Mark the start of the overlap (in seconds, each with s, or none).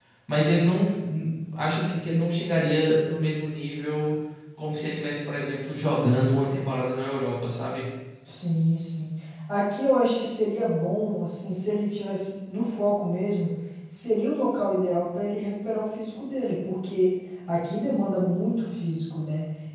none